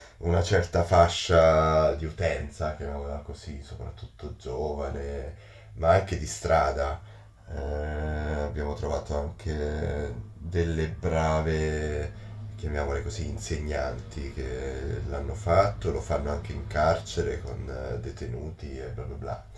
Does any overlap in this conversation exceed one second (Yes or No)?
No